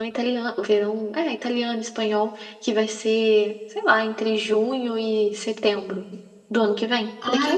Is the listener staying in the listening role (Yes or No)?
No